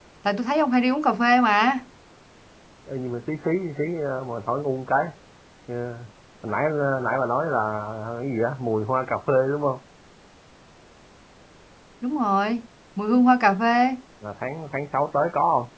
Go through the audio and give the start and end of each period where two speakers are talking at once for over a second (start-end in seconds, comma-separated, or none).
none